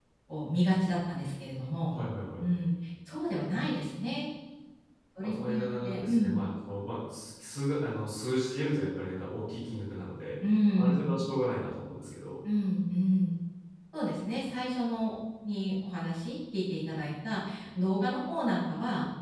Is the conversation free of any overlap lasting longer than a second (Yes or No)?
No